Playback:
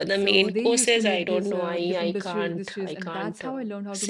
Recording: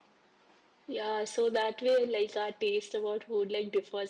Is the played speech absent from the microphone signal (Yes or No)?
Yes